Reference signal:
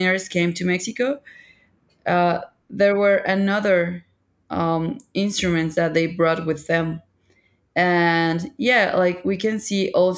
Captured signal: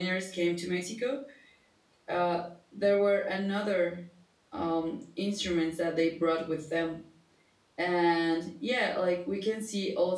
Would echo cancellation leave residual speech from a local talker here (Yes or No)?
No